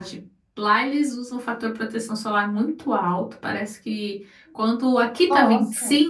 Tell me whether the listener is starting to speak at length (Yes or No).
No